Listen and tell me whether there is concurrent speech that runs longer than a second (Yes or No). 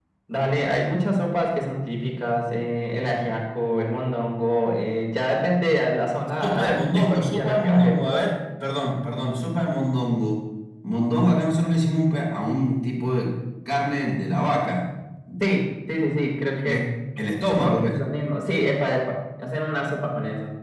Yes